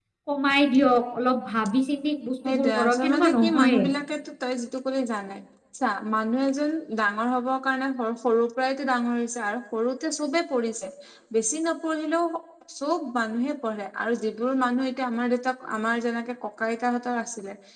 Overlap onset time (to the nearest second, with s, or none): 2 s